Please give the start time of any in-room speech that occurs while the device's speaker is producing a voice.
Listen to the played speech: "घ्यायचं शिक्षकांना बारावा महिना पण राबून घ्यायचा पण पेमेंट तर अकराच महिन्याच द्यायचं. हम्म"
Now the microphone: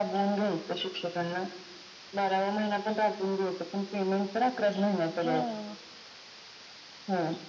5.2 s

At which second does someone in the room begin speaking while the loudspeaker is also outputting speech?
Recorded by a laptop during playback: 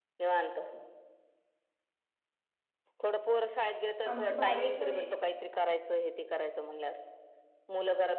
4.1 s

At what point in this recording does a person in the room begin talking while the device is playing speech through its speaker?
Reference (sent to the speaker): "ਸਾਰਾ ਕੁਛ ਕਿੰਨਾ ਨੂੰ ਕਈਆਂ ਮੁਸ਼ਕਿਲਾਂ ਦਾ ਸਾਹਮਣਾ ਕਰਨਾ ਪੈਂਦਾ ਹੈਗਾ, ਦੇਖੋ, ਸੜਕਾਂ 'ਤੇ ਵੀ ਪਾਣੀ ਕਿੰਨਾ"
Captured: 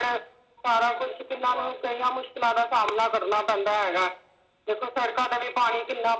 none

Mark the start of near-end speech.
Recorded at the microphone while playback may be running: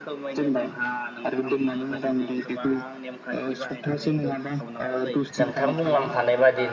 5.4 s

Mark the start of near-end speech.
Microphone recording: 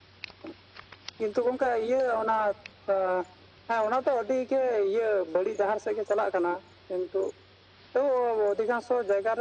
none

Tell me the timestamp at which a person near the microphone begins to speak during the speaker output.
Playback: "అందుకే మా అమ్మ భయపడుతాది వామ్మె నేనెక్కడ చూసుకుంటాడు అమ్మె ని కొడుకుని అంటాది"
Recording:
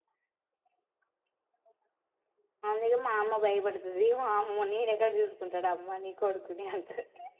none

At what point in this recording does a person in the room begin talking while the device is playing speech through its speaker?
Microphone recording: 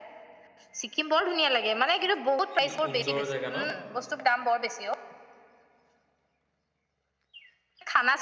2.6 s

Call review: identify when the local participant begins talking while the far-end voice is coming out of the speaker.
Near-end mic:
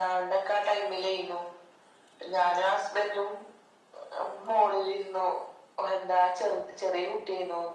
none

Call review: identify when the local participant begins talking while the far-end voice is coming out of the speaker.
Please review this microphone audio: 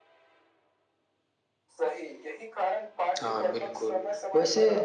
3.2 s

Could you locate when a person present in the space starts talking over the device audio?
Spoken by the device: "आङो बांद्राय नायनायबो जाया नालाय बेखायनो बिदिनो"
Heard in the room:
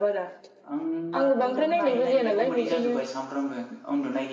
0.7 s

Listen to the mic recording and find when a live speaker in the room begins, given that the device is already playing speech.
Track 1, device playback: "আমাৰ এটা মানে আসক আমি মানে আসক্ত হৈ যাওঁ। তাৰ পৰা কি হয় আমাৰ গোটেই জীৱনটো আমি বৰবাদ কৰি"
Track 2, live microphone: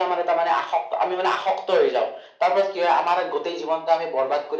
none

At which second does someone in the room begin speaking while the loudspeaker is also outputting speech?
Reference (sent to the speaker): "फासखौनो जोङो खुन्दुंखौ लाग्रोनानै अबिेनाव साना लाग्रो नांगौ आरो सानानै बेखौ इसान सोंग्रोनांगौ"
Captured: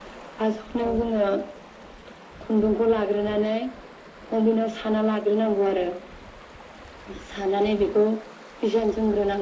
none

